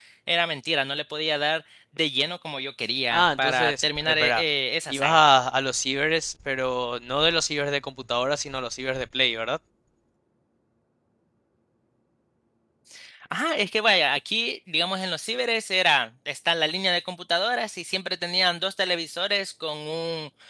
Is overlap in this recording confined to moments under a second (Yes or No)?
No